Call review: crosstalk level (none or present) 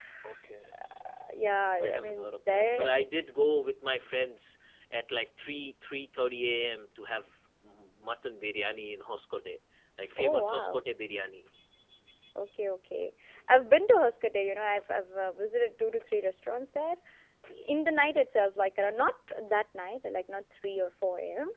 present